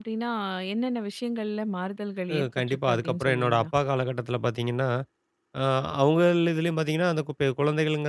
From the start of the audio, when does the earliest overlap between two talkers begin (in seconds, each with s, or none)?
2.3 s